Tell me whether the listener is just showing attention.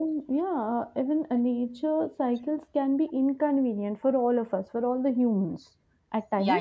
No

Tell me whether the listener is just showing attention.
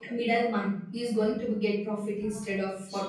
No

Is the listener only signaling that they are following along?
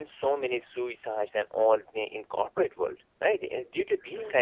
Yes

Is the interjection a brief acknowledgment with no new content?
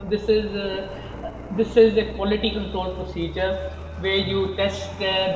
Yes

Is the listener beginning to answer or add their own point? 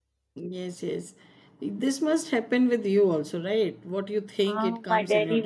Yes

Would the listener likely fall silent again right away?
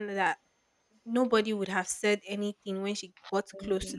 Yes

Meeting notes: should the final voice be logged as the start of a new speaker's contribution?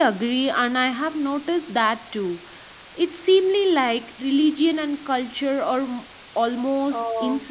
Yes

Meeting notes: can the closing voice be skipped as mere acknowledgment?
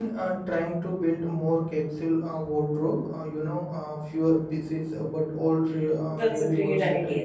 No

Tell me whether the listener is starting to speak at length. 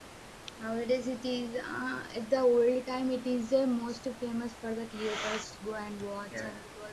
No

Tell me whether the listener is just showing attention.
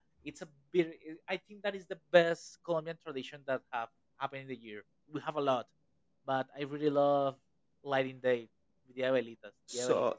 No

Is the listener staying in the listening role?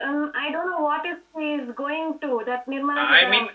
No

